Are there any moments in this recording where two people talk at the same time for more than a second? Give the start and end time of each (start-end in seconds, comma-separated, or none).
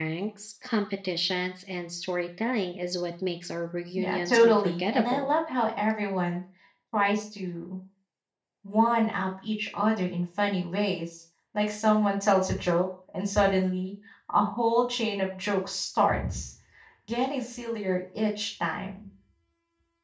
4.0-5.3